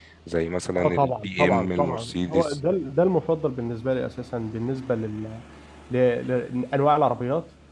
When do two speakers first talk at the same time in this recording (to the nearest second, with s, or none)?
1 s